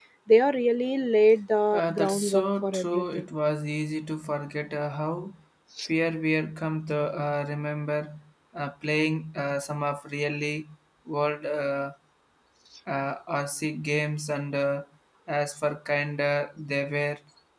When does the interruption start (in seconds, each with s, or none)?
1.7 s